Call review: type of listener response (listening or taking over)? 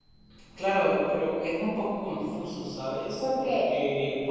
listening